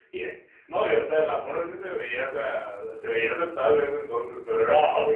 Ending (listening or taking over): listening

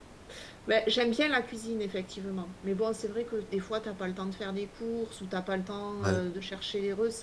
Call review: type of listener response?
listening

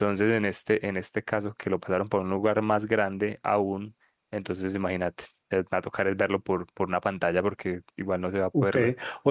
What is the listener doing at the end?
taking over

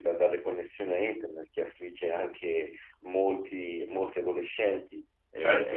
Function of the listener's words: taking over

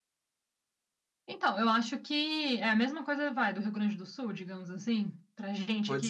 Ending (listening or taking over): taking over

